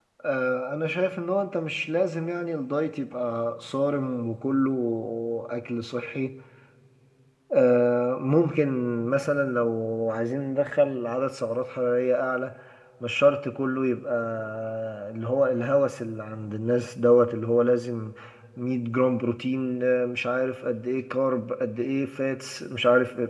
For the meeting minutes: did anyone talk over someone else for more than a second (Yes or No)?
No